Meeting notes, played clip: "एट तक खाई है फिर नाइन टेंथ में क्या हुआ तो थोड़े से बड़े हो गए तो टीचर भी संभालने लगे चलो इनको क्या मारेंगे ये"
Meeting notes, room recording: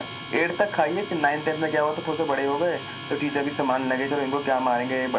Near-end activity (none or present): none